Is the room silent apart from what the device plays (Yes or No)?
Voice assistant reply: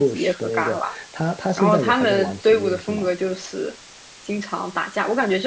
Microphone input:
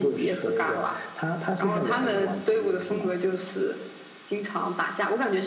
Yes